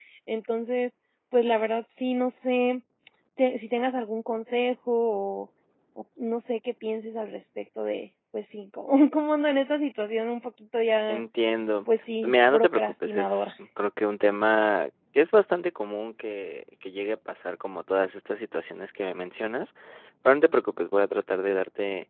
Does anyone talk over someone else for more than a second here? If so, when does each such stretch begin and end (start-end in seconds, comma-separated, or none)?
12.2-13.5